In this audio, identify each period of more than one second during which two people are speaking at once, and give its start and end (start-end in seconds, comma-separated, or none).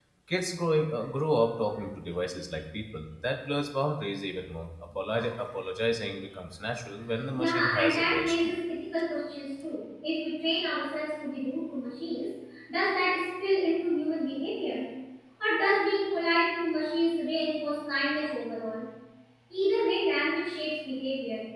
7.3-8.6